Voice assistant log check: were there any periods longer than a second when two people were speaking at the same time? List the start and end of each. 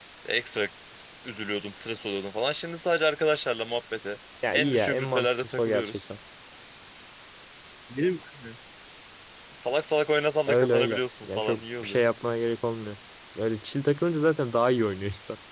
4.5-6.0, 10.5-12.0

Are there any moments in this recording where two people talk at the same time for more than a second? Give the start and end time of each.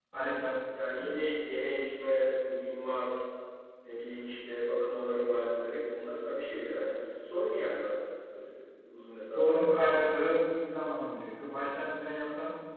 none

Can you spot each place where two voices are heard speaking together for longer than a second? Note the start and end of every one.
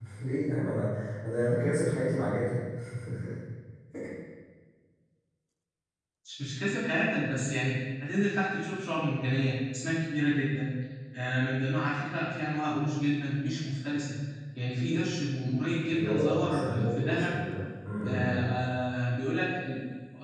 15.9-17.4

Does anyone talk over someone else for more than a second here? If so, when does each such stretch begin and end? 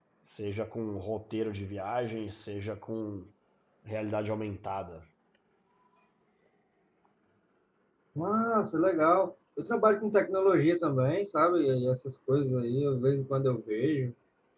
none

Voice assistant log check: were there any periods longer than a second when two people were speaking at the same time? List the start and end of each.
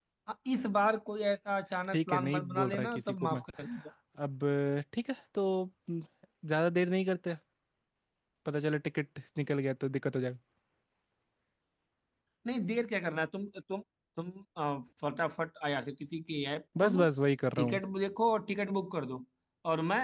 1.9-3.4

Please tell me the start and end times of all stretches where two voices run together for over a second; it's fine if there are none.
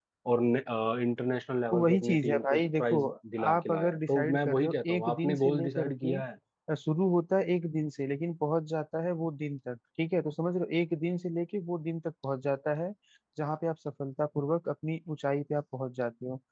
1.7-3.0, 3.5-6.2

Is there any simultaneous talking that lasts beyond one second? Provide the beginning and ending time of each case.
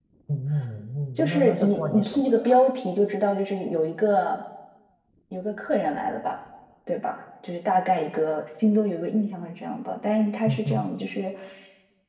1.2-2.6

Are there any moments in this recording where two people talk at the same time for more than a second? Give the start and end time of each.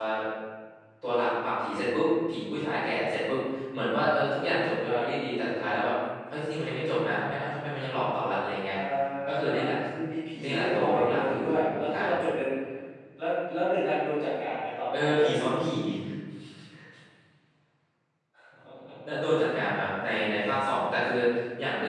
10.4-12.1

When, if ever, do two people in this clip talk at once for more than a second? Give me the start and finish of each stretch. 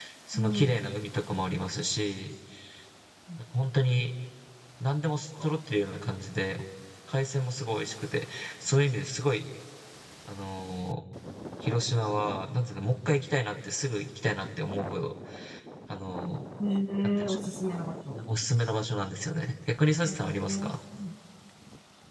none

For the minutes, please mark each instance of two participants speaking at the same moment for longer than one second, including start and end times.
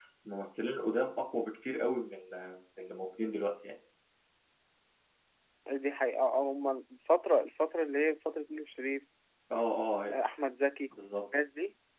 none

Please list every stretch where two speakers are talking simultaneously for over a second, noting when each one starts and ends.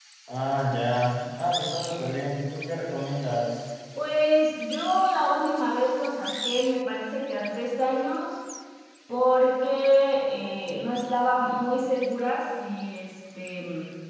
none

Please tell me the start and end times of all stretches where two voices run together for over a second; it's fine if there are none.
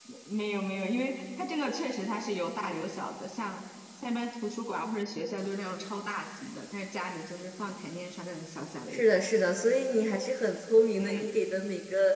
none

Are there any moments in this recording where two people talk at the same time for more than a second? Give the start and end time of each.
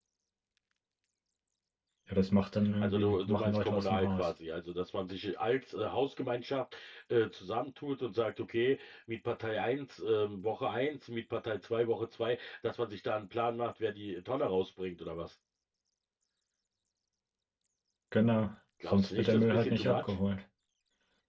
2.8-4.3, 18.9-20.2

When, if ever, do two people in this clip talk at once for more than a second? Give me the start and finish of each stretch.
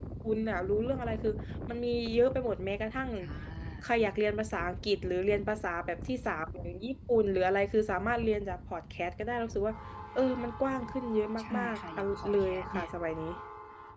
11.4-12.9

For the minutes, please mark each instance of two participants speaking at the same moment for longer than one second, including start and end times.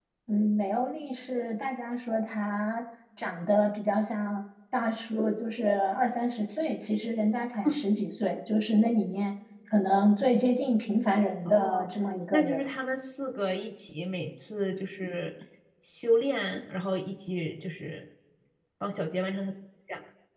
none

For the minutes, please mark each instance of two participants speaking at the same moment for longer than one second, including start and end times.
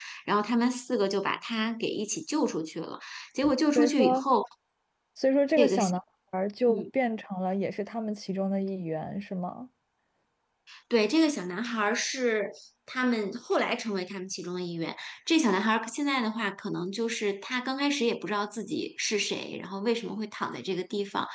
none

